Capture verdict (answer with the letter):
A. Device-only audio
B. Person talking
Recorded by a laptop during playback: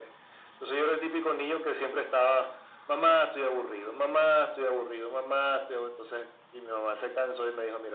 A